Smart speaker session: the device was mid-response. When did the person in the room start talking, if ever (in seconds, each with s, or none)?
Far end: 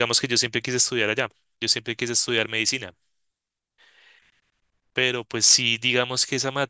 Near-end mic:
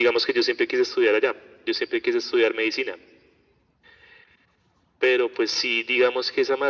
none